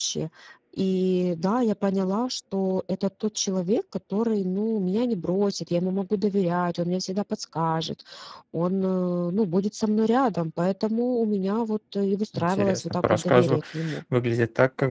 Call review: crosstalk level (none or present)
present